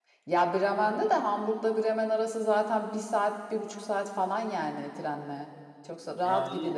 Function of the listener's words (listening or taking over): taking over